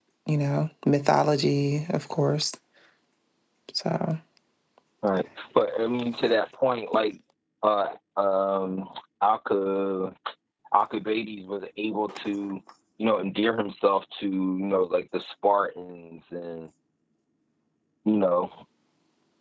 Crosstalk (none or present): none